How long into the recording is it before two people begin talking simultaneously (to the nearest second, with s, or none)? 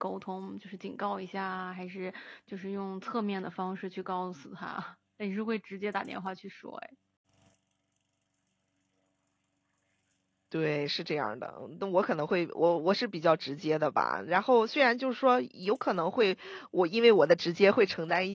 none